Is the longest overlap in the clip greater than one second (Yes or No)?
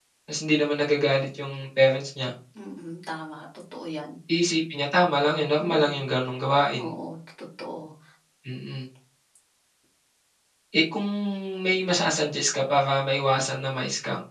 No